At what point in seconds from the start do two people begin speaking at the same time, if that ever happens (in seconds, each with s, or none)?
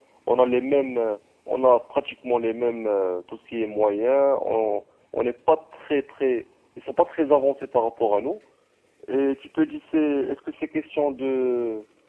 none